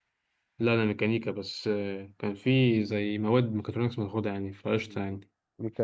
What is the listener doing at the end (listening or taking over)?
taking over